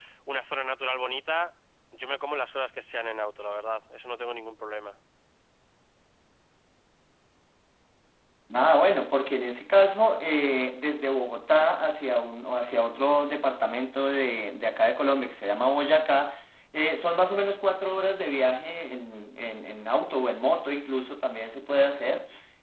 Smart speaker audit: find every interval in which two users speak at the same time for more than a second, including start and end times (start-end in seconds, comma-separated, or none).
none